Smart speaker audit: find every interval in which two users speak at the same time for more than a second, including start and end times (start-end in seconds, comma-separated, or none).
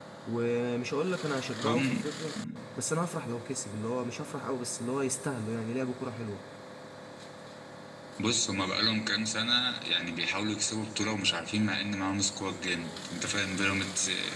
none